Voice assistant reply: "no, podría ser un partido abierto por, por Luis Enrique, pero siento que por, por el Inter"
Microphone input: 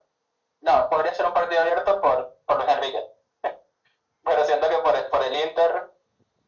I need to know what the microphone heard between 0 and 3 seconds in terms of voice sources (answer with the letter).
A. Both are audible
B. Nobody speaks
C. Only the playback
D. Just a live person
C